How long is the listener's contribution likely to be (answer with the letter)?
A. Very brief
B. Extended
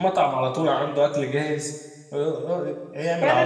B